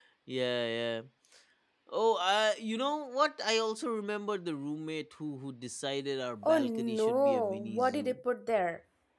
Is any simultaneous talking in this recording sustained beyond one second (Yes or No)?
Yes